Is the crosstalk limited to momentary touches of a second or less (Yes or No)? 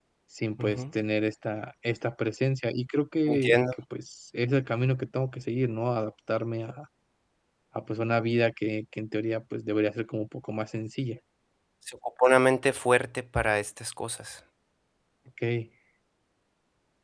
Yes